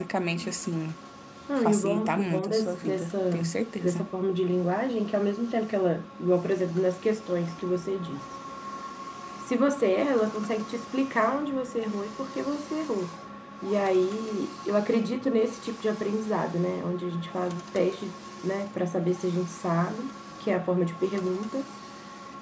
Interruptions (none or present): present